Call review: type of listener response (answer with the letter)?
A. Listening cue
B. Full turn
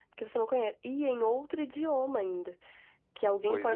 A